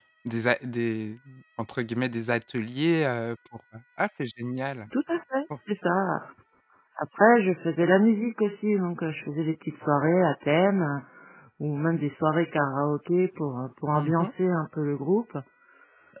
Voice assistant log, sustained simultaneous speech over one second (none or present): none